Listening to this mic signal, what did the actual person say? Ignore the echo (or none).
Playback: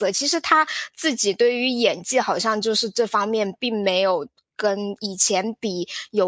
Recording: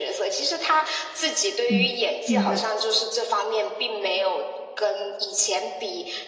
嗯，明白，